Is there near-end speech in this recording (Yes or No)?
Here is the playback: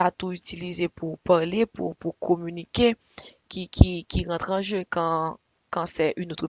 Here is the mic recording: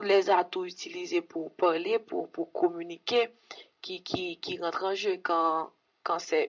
No